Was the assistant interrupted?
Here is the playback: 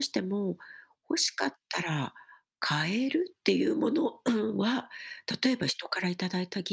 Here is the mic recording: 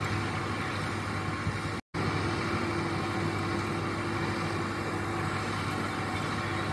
No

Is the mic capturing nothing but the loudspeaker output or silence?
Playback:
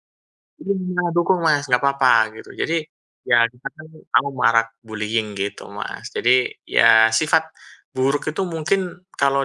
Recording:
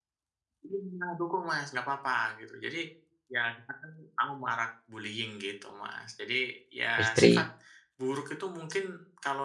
No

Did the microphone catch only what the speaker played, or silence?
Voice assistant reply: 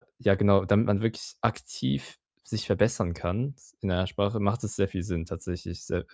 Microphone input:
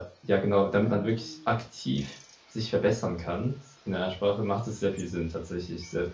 No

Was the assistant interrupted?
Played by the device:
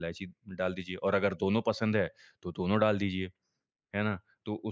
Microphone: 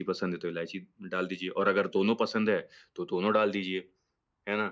No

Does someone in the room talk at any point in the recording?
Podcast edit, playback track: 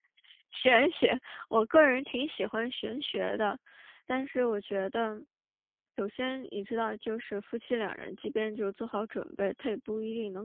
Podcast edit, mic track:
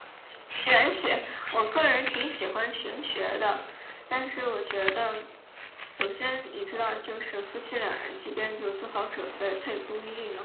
No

